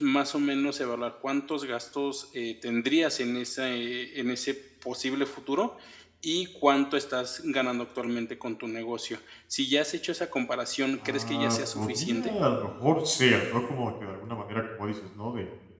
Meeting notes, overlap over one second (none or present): present